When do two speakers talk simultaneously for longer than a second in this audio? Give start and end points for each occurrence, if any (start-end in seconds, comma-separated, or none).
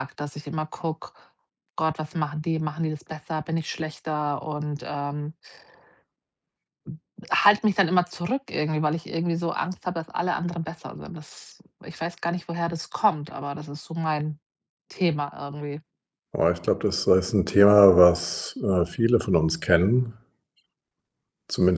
none